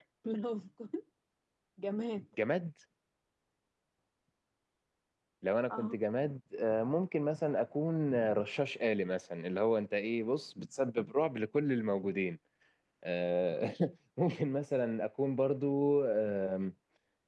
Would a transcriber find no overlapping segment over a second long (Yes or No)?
Yes